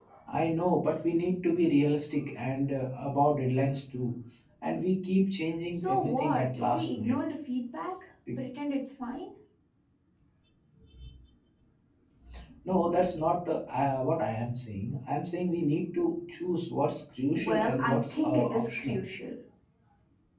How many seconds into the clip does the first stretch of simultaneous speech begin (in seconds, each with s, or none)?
5.7 s